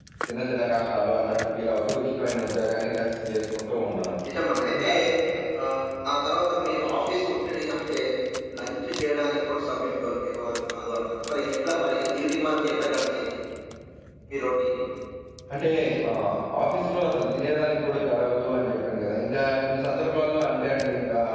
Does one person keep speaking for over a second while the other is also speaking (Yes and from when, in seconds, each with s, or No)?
No